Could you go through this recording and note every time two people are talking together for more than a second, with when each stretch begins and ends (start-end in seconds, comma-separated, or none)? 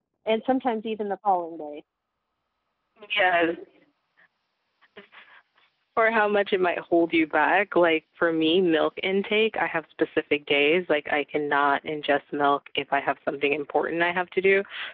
none